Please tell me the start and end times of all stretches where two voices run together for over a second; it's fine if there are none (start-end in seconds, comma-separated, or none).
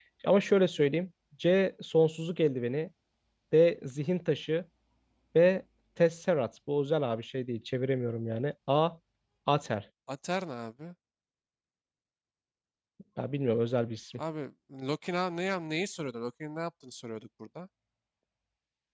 none